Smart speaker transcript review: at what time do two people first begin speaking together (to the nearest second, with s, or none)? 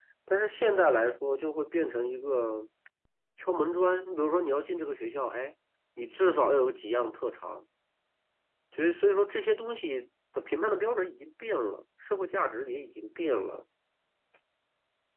none